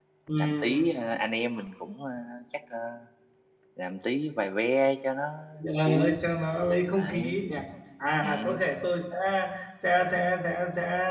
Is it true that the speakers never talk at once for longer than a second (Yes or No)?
Yes